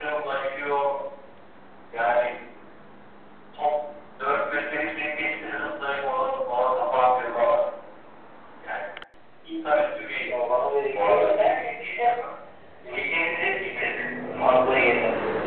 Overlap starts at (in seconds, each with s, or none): 10.9 s